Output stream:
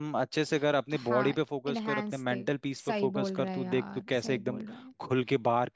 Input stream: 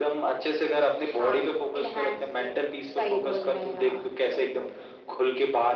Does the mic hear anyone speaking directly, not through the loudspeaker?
No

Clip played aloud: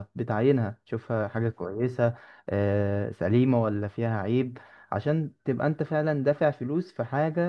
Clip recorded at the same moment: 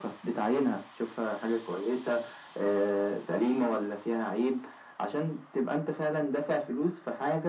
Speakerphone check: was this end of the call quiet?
Yes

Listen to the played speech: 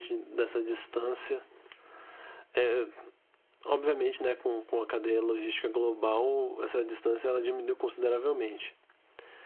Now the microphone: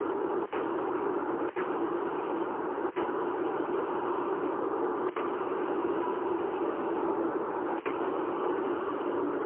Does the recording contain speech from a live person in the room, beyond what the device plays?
No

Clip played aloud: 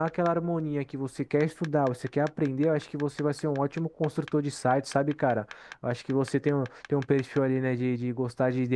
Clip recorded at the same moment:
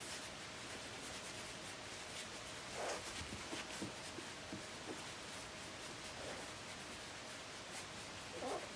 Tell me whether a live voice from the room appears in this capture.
No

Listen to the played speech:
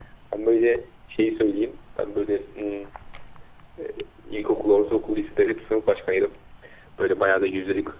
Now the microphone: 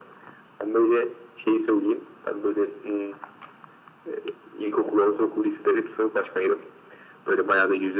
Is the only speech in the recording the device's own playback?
Yes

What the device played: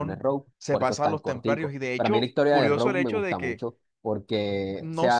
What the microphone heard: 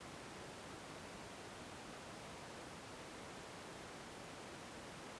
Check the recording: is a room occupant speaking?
No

